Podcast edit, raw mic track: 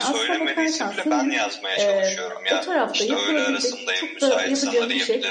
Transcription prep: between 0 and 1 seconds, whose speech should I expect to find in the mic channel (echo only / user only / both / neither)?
both